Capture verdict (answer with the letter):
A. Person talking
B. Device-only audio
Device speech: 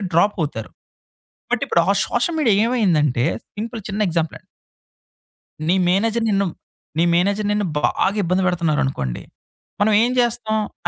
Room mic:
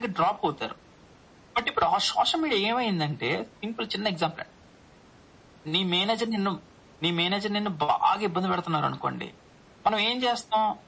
B